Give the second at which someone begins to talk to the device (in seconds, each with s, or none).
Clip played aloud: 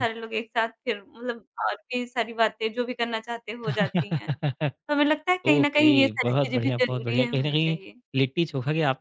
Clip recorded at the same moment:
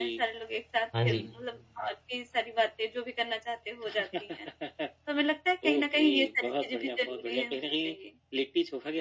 0.9 s